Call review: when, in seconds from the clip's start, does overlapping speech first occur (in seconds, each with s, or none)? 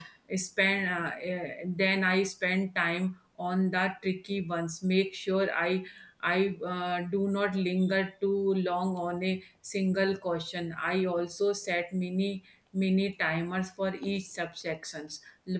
none